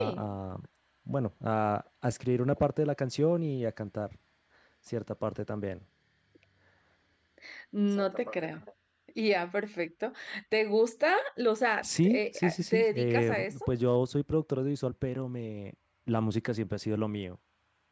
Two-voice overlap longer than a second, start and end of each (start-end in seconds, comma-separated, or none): 11.8-13.5